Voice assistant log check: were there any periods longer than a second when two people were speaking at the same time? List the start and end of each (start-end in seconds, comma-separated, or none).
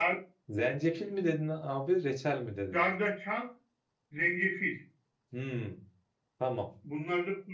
none